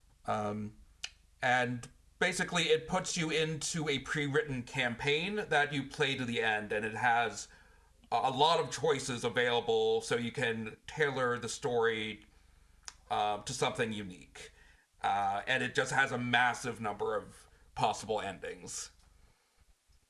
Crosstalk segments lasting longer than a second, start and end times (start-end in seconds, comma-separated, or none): none